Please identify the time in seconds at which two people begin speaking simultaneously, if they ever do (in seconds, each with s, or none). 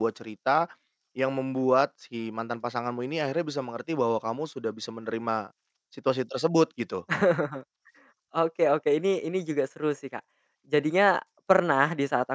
none